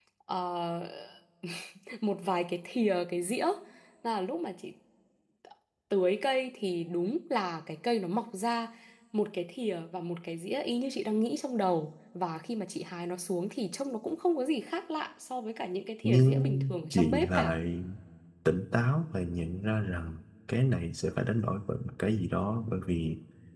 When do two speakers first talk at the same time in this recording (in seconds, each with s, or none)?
16.0 s